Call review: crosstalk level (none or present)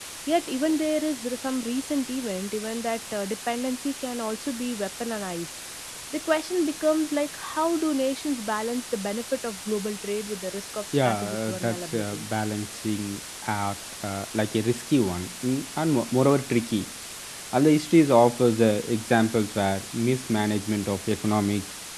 present